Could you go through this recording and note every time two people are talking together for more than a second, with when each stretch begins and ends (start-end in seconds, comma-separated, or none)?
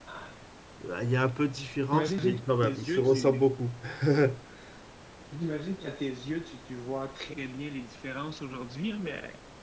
1.9-3.4